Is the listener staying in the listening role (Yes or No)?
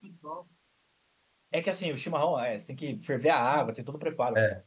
Yes